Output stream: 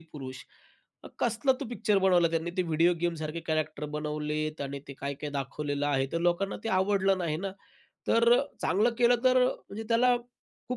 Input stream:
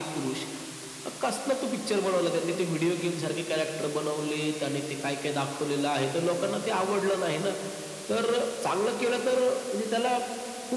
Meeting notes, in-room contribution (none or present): none